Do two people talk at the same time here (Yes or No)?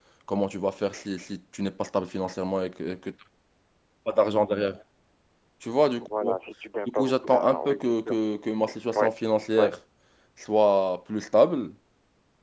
Yes